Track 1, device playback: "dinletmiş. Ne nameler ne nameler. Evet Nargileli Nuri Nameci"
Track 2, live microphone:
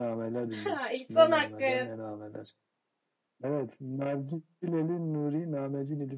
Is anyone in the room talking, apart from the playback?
Yes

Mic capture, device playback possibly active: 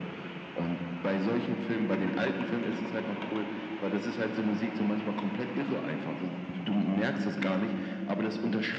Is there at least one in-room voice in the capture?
No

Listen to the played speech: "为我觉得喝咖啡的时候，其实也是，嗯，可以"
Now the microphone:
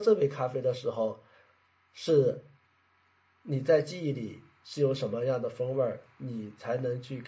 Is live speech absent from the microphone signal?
No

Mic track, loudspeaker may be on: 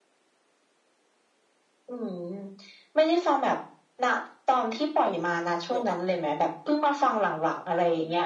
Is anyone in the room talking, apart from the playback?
Yes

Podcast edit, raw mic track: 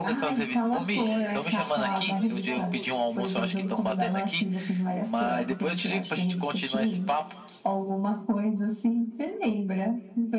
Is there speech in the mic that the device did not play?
Yes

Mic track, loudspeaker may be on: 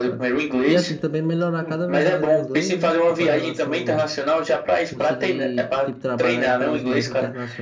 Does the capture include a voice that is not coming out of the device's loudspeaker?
Yes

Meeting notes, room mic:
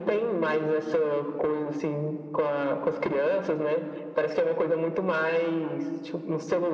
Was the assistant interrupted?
No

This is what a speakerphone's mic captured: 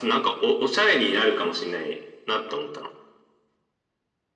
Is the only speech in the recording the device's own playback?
Yes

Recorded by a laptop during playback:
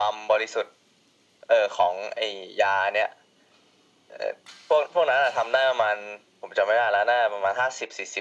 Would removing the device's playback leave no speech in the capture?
Yes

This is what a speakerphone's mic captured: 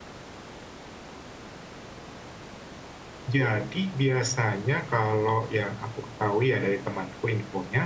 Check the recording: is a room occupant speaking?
Yes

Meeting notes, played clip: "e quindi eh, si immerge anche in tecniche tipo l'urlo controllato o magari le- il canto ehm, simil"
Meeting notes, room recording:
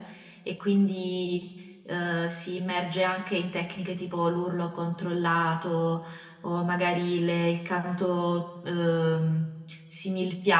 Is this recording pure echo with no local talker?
Yes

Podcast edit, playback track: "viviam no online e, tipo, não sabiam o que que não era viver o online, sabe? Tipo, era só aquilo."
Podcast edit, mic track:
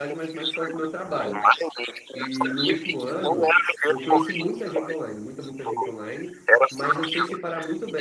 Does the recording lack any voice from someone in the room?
No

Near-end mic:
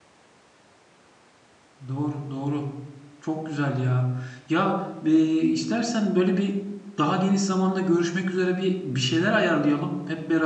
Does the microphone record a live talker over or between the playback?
Yes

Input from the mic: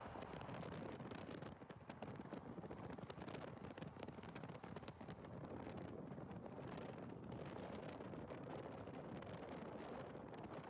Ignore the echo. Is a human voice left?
No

